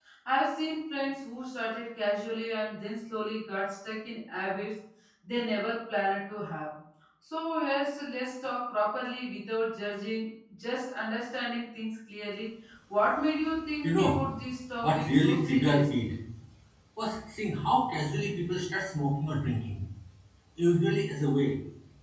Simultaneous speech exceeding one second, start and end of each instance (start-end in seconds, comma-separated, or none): 14.8-16.1